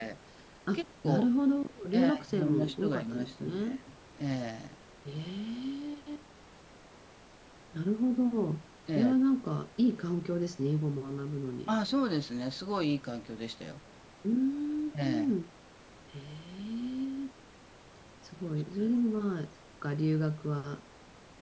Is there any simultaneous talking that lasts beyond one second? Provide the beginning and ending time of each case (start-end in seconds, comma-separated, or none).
1.9-3.8